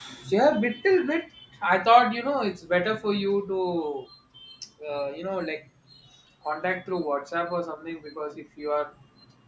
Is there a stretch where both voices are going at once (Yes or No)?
No